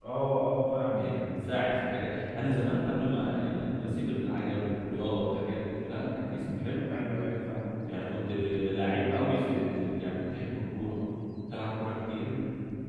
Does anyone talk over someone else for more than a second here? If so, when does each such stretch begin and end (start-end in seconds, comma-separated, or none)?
none